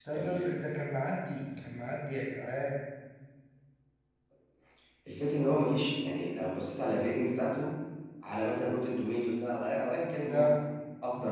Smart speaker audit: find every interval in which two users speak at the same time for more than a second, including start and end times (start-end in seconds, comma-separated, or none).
none